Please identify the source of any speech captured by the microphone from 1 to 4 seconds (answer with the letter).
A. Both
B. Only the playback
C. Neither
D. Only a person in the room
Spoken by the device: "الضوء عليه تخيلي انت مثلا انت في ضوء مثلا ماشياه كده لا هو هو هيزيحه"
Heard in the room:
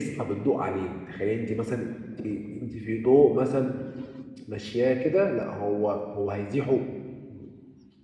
B